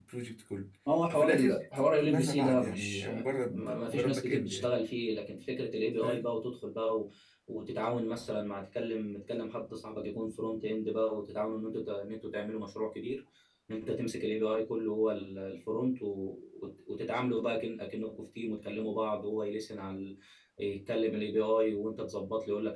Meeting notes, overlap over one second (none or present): present